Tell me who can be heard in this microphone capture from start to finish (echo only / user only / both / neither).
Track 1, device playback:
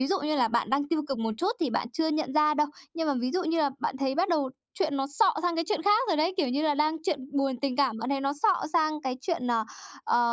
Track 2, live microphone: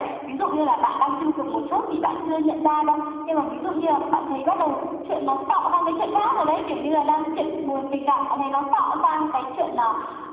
echo only